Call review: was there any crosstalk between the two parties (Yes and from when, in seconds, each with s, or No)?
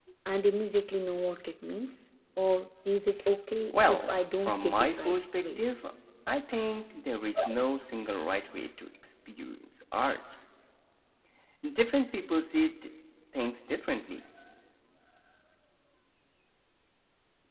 Yes, from 3.7 s